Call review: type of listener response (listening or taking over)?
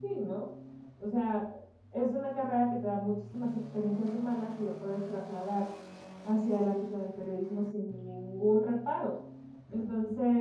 listening